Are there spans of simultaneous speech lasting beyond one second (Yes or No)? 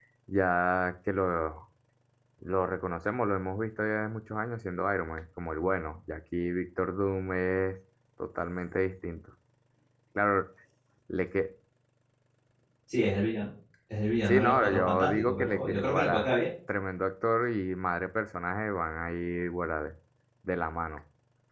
Yes